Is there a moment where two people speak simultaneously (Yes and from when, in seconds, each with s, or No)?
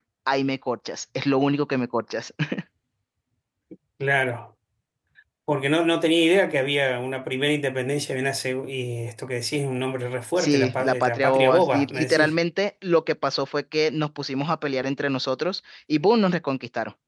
Yes, from 10.4 s